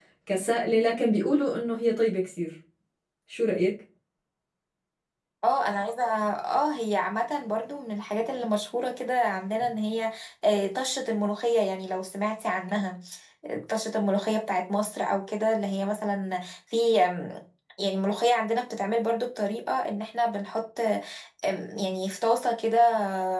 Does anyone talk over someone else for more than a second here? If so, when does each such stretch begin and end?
none

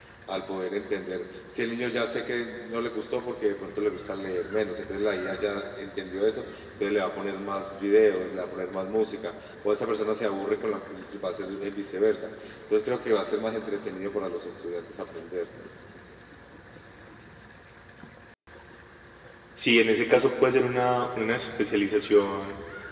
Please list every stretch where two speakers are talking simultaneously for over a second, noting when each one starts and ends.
none

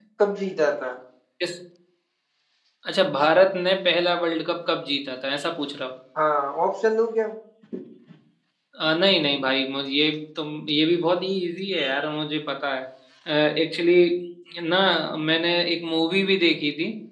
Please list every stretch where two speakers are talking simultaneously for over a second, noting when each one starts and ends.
none

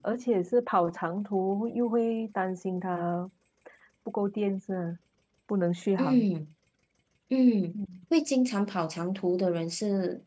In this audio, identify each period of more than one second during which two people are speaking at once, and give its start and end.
none

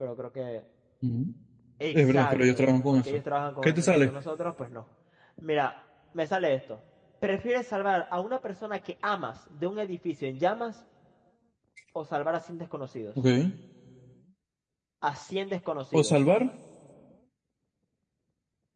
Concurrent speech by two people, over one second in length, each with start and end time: 1.9-3.2

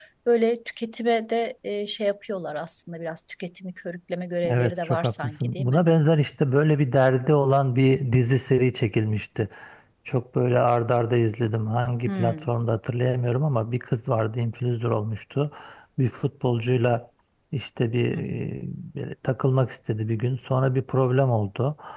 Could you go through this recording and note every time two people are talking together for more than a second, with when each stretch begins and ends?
4.5-5.8

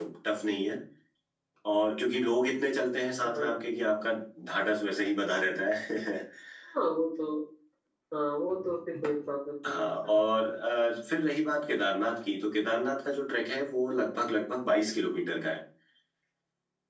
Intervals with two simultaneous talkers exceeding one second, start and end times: none

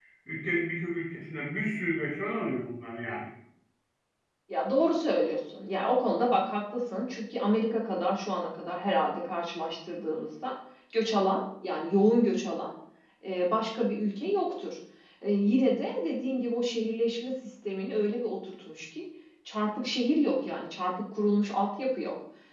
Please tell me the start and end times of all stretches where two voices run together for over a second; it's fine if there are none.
none

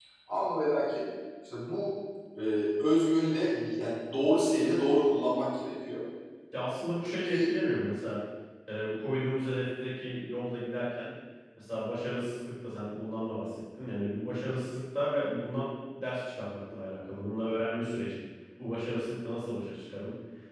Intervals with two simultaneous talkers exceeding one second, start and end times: none

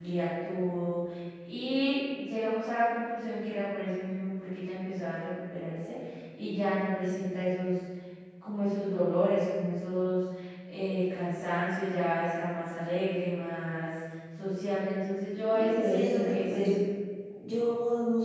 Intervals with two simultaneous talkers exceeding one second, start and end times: 15.5-16.7

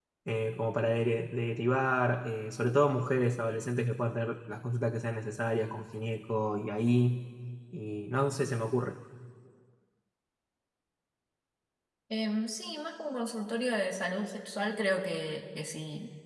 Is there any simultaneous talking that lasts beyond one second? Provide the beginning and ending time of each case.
none

